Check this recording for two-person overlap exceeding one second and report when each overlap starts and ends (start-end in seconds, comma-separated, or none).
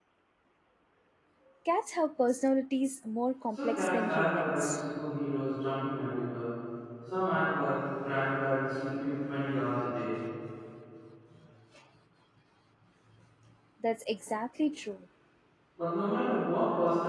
3.5-4.8